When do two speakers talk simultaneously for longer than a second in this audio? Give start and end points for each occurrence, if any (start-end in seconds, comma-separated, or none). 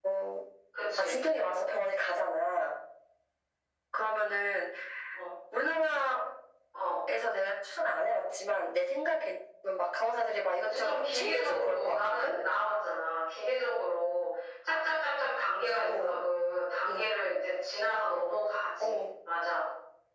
10.6-12.3